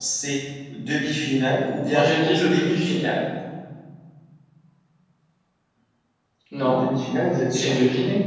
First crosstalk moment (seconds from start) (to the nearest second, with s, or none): 2 s